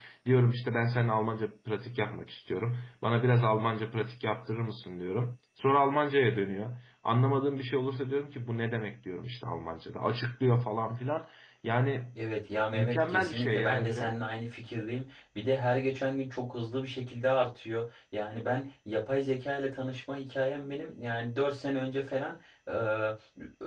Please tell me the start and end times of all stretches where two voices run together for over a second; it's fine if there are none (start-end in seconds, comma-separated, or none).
12.7-14.2